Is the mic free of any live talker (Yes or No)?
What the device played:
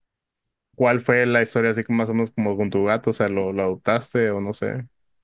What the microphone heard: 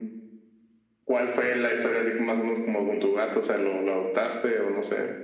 Yes